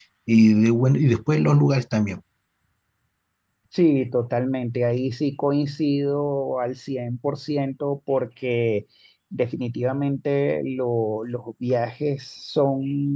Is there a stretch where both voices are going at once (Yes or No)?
No